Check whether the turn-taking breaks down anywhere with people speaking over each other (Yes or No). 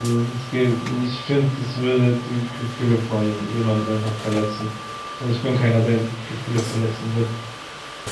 No